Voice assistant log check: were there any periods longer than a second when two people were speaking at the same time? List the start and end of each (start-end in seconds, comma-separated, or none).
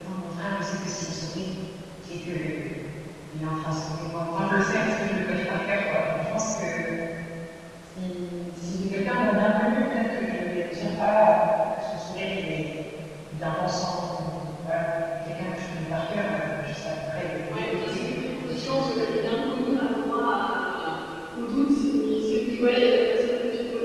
17.5-19.1